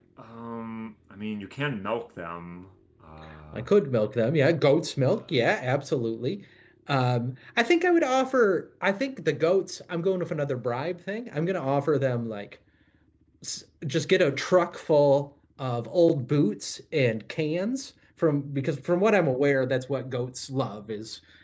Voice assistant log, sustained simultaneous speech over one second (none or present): none